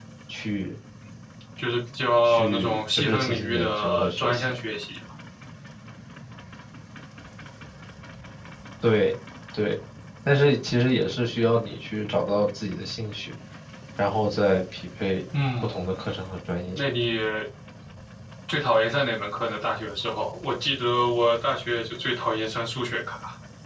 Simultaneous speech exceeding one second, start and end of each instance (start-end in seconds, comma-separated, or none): 2.2-4.5